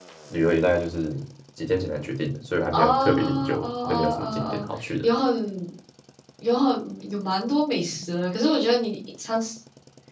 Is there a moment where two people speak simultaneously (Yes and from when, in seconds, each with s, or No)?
Yes, from 2.7 s